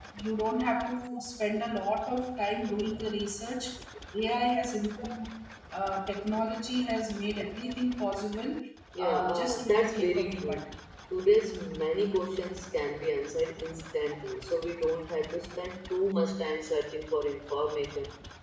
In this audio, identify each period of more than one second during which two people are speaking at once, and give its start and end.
9.0-10.7

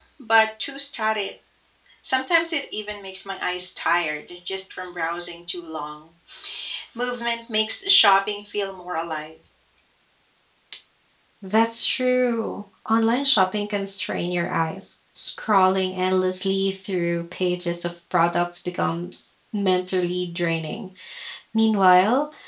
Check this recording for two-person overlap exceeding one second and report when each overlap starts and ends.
none

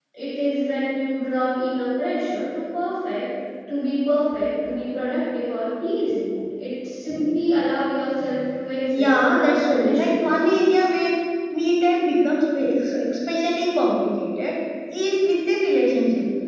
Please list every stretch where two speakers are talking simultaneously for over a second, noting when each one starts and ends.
8.9-10.2

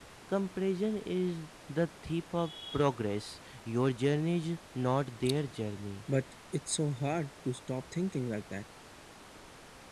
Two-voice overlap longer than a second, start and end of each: none

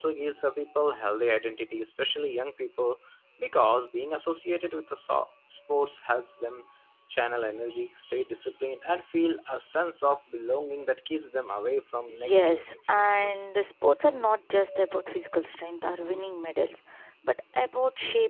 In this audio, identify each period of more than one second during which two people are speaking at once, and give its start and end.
12.1-13.5

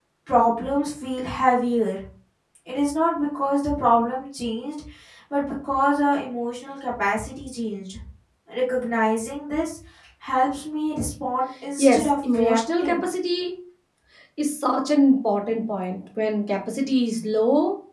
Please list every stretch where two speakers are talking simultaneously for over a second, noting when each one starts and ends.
11.8-13.0

